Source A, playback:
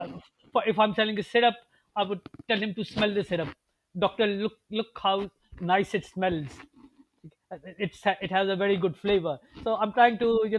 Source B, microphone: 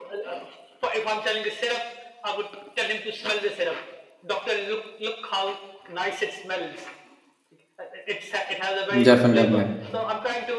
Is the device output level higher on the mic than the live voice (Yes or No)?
No